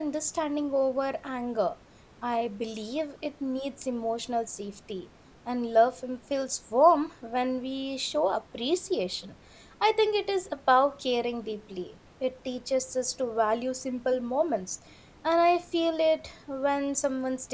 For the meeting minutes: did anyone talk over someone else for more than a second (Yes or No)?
No